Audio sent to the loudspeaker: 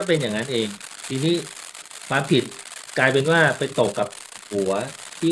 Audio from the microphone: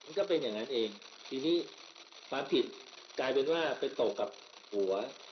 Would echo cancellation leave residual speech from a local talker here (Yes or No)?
No